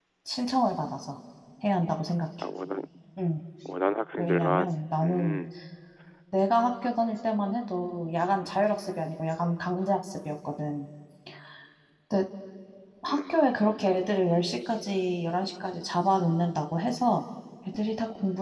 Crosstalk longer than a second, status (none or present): present